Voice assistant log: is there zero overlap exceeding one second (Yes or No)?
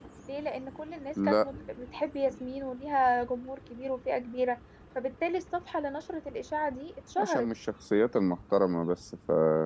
Yes